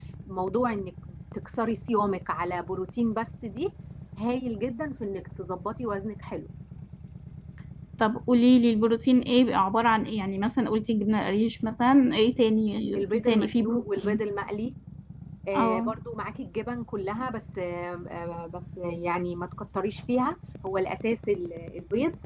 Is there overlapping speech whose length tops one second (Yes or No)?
Yes